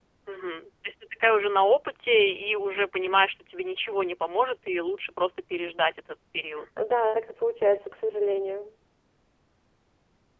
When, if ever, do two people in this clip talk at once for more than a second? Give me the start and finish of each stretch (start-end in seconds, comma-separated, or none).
none